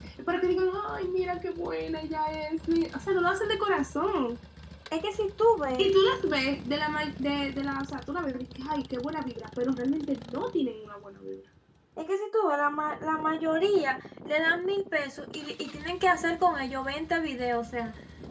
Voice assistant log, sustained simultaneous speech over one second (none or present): none